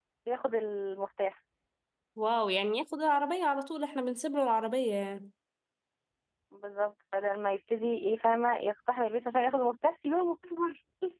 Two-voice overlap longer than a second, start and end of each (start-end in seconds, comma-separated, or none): none